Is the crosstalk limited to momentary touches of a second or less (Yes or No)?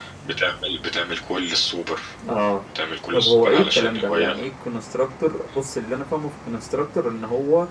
No